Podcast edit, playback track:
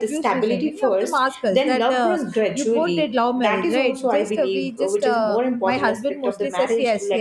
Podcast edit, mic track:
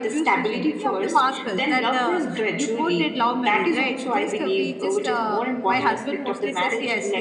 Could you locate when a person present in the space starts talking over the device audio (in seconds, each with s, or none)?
none